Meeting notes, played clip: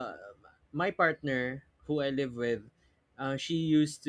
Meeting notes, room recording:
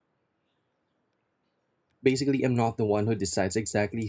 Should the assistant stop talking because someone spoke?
Yes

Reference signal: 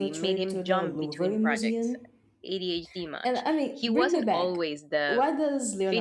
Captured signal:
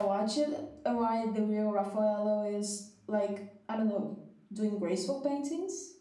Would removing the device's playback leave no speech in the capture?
No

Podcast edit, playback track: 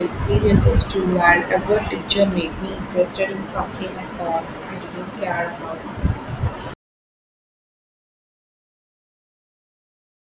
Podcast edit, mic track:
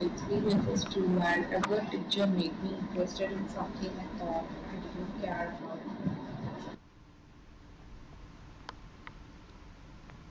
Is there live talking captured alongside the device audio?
No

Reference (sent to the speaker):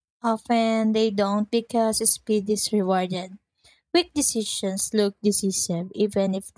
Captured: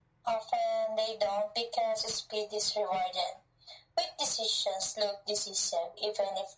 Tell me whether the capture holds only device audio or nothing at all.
Yes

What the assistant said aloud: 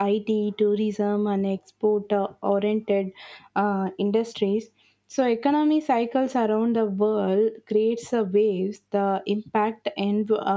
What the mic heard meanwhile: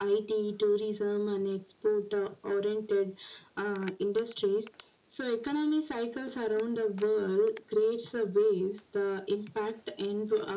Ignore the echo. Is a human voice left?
No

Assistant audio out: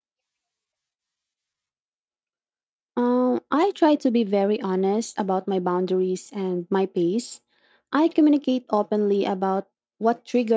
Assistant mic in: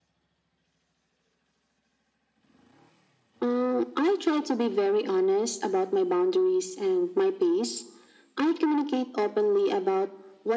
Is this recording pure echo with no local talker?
Yes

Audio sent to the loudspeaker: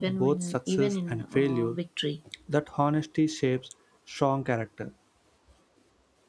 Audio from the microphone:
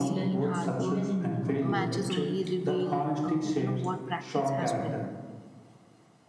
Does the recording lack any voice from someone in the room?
No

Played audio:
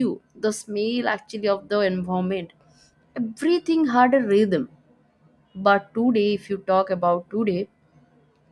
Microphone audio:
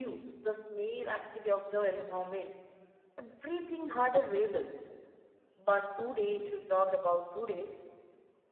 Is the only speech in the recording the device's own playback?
Yes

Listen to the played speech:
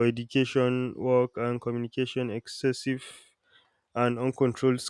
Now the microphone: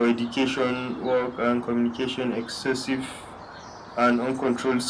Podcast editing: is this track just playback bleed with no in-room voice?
Yes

